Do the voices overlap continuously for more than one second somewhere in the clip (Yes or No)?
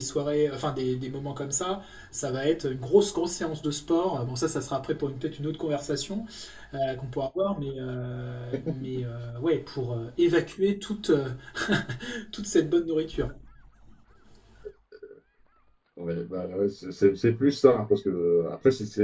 No